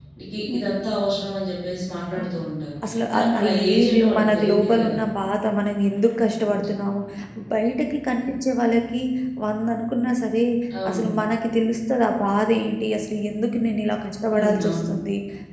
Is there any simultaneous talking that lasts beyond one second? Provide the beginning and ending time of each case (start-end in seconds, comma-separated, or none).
3.1-5.0